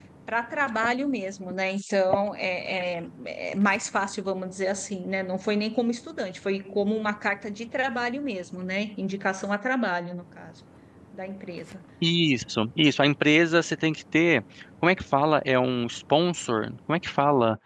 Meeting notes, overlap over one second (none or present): none